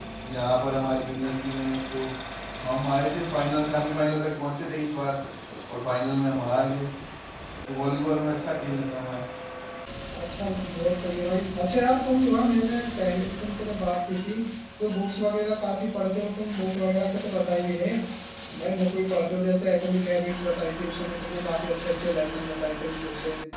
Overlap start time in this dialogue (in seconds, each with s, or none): none